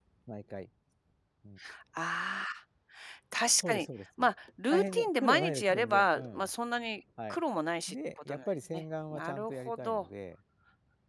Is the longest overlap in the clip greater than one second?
Yes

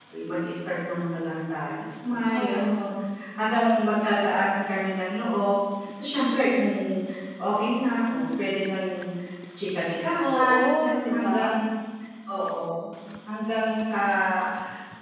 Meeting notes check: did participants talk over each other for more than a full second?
Yes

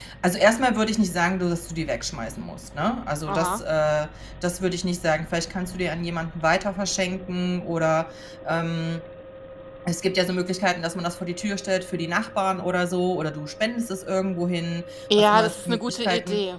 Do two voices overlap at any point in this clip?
Yes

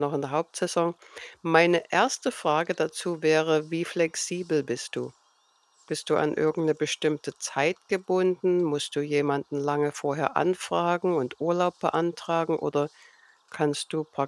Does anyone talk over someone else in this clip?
No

